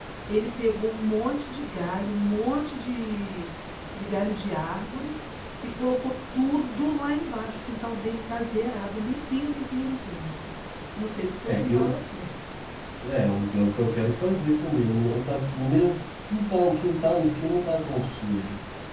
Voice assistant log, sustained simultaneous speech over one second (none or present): none